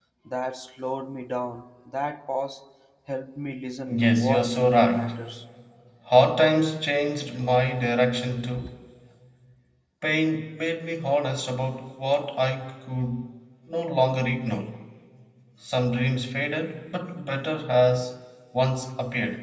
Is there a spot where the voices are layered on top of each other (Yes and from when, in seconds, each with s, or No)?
Yes, from 3.9 s